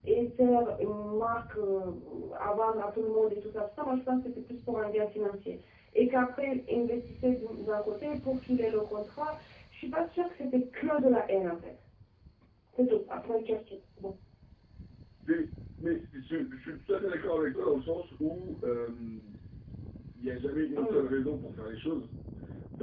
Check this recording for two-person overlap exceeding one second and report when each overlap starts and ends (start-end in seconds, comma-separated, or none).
none